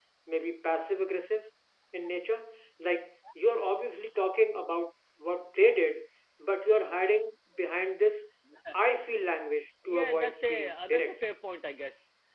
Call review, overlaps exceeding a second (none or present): present